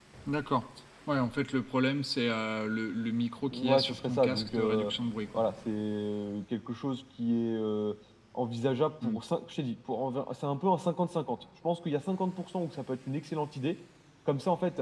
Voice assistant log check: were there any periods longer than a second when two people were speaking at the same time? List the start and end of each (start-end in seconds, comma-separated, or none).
3.5-4.9